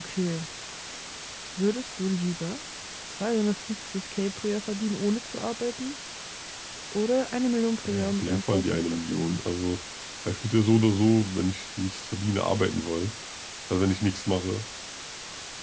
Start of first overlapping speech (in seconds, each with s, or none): 7.8 s